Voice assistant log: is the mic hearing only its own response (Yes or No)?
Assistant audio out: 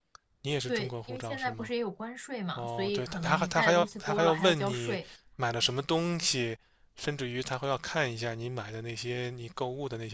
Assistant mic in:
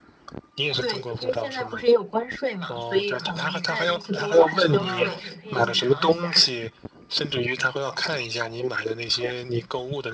No